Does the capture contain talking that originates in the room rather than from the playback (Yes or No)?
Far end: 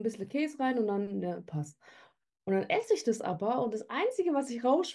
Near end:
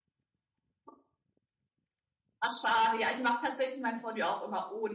Yes